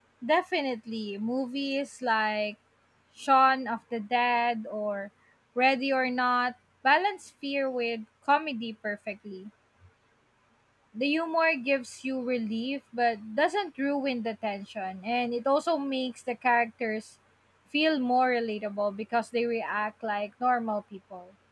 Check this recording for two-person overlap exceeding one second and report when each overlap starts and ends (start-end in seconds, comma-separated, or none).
none